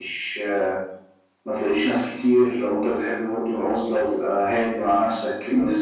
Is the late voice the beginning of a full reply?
Yes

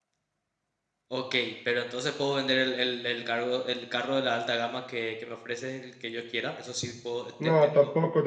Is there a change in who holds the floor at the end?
Yes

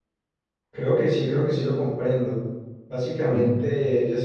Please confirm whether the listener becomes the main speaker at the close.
No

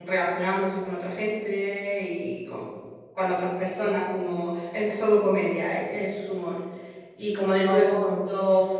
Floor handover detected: No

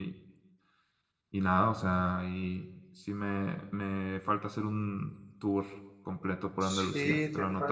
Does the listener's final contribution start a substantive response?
Yes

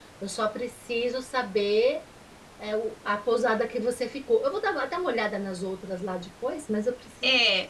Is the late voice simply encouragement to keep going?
No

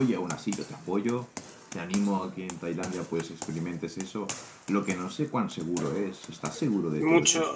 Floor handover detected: Yes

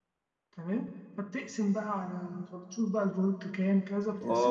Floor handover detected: Yes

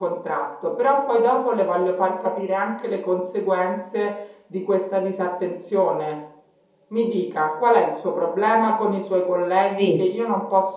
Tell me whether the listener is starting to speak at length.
No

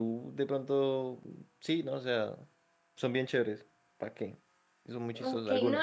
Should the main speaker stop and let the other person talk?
Yes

